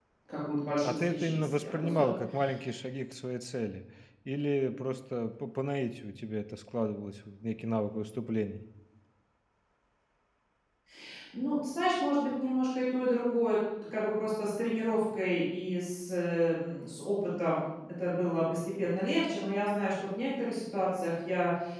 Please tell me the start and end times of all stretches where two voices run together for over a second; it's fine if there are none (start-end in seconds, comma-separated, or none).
0.8-2.1